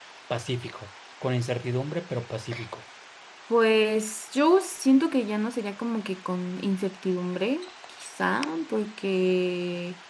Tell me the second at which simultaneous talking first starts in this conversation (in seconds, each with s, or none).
none